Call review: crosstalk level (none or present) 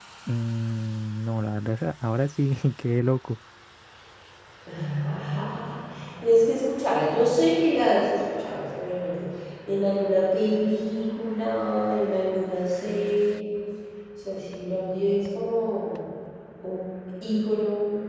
none